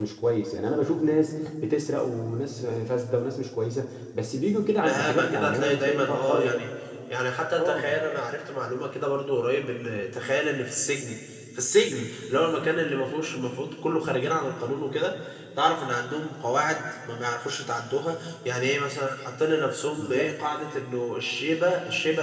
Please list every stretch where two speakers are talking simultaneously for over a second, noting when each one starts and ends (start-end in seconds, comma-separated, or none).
4.8-6.7